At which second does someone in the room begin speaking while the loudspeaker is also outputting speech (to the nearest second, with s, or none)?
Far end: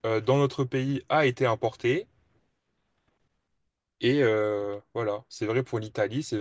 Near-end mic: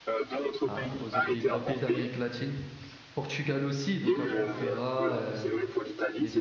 1 s